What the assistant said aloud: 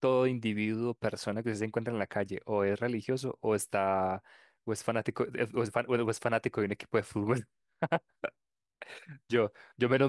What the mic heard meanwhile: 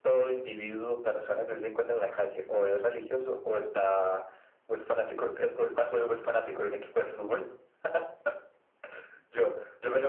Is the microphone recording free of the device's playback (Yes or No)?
No